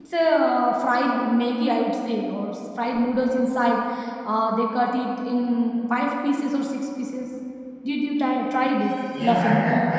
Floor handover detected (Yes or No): Yes